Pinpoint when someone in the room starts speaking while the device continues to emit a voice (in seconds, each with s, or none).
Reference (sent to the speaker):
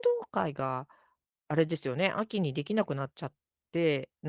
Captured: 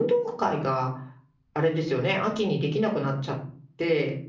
none